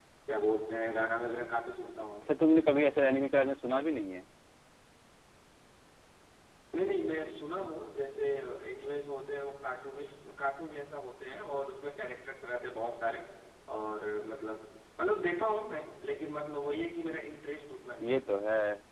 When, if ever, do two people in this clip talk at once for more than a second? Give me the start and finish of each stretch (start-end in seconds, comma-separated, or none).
none